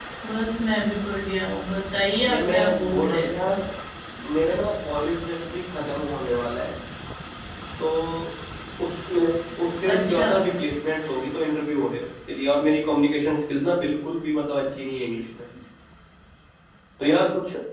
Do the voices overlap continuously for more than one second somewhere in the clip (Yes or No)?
Yes